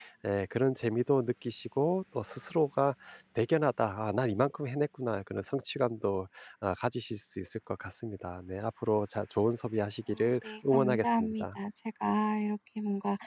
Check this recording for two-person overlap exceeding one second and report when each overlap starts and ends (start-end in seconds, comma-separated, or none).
10.2-11.6